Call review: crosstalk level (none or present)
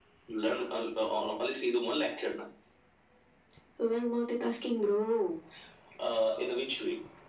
none